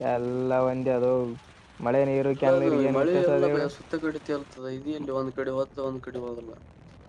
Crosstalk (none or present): present